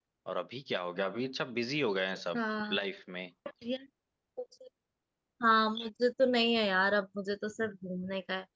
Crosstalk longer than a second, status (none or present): none